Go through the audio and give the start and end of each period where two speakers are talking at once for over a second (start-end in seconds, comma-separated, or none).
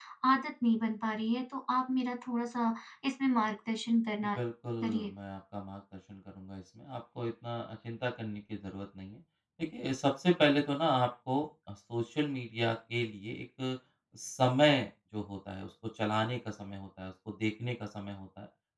none